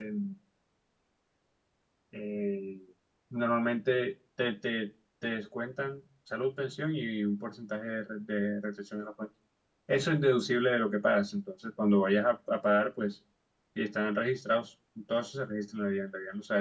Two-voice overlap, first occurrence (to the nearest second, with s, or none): none